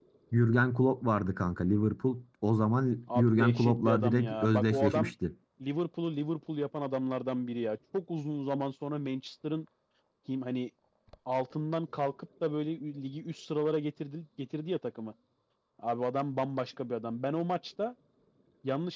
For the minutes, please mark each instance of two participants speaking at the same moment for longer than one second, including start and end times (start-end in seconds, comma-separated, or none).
3.1-5.1